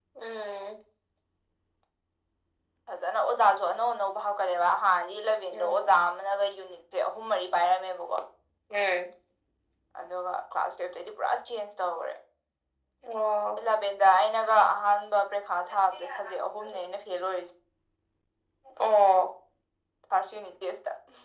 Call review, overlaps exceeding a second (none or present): none